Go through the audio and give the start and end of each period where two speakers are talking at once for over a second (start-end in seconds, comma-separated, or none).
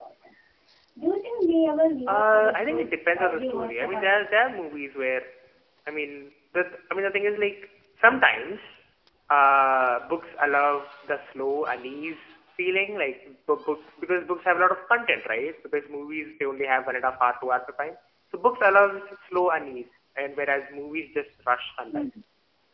2.1-4.2